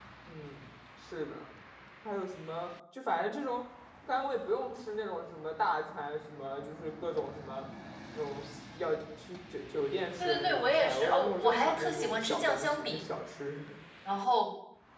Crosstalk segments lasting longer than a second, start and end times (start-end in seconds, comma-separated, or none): 10.2-13.1